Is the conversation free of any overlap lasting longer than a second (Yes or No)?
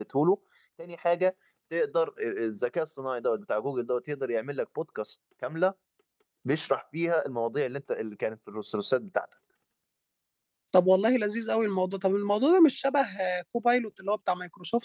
Yes